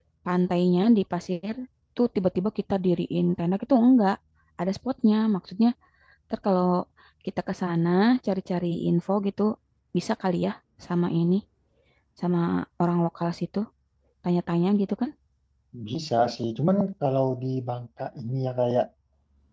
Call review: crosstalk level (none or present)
none